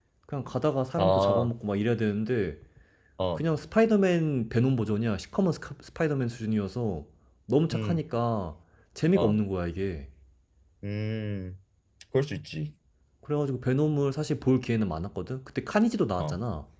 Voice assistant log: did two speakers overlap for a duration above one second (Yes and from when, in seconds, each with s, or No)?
No